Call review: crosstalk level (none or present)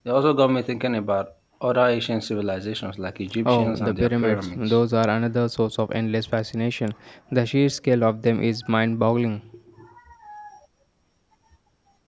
present